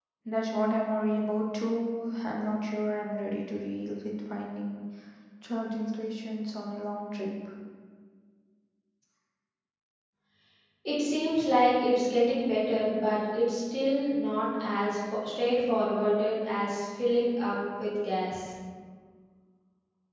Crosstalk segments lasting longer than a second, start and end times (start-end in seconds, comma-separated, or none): none